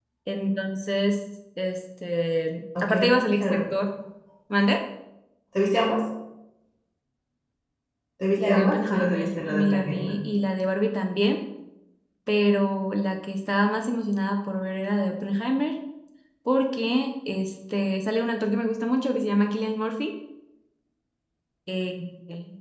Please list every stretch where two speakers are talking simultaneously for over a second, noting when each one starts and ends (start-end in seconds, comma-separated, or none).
8.4-10.1